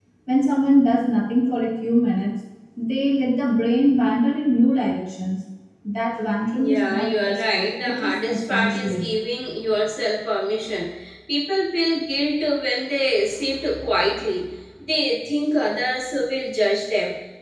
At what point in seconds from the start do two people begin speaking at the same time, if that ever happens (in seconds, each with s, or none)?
6.5 s